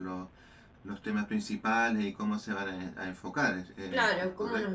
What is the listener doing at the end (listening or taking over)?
taking over